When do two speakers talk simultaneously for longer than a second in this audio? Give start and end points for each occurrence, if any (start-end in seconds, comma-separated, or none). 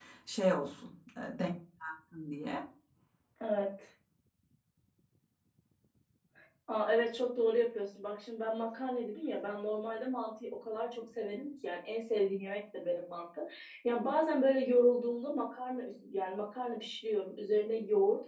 none